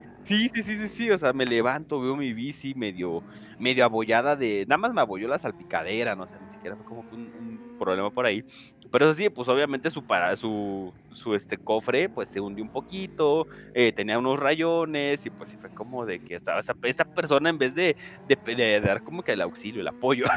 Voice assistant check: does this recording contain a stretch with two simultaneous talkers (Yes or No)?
No